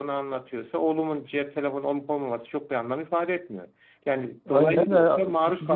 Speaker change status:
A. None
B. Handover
B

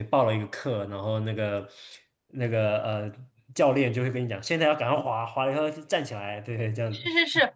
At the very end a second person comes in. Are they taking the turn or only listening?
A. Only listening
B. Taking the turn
B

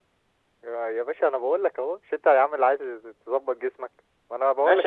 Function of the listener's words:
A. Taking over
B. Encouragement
A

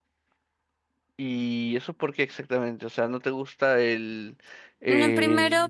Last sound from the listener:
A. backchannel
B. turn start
B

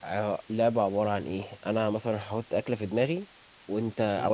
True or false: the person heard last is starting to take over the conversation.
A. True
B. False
B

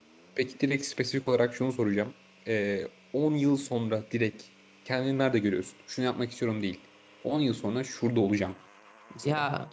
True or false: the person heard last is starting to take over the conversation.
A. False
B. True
B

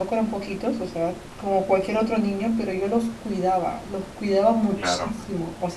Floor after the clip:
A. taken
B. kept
B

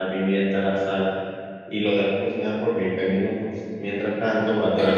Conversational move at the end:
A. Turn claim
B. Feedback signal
A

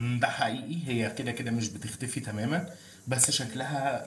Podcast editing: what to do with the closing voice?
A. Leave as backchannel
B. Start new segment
A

